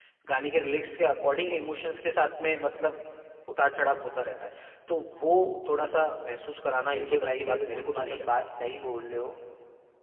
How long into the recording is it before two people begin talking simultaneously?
6.9 s

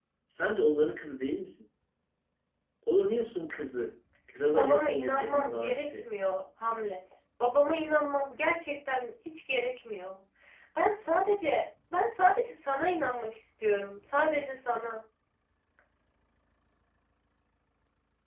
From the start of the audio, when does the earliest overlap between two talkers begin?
4.5 s

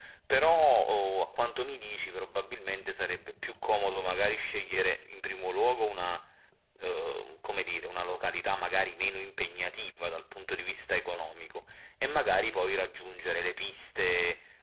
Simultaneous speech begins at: none

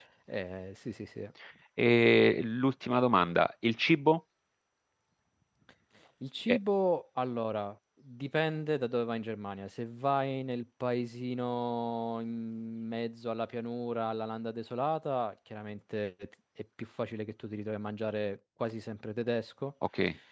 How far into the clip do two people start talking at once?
none

